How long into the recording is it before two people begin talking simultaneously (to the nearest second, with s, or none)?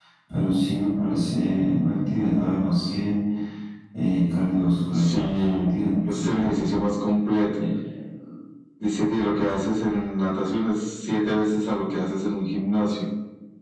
5 s